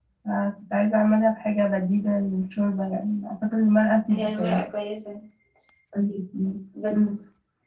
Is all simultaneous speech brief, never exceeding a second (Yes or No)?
Yes